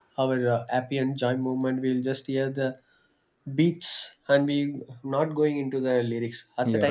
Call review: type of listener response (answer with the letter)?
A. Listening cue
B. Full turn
A